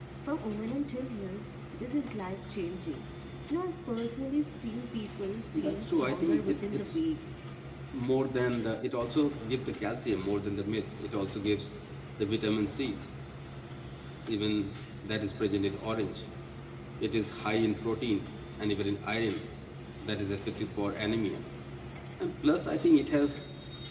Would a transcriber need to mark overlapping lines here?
Yes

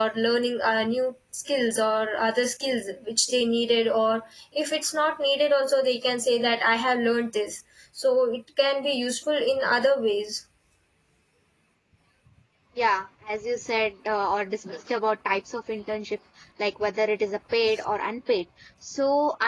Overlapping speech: No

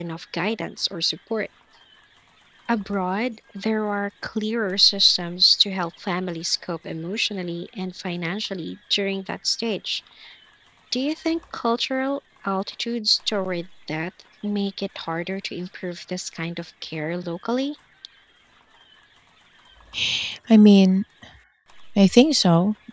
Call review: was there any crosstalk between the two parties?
No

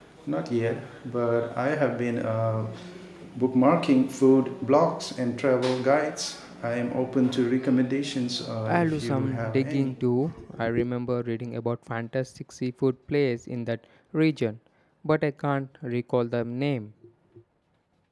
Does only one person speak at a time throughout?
No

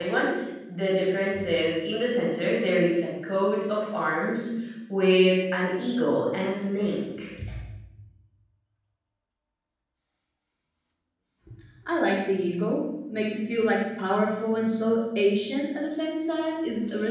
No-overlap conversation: Yes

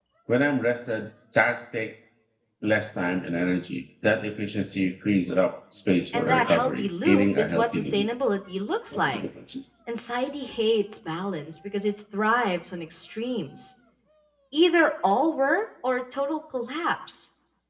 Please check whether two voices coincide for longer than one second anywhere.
Yes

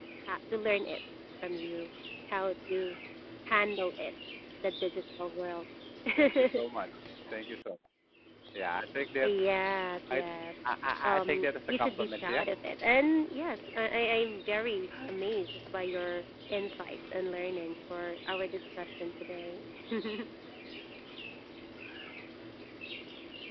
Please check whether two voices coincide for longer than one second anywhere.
Yes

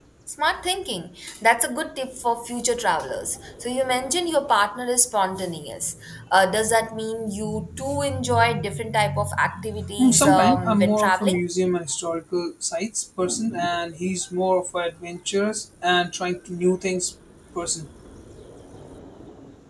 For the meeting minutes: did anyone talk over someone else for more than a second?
Yes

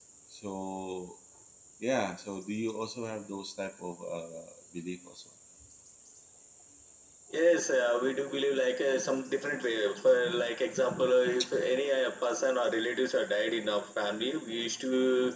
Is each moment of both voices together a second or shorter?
Yes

